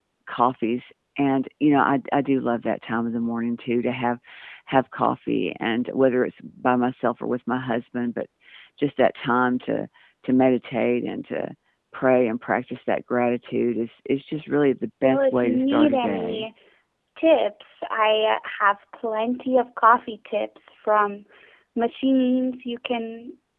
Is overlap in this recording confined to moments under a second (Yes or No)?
No